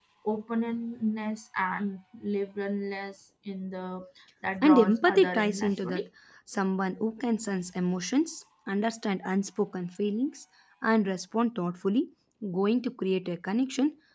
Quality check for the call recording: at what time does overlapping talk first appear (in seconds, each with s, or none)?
4.6 s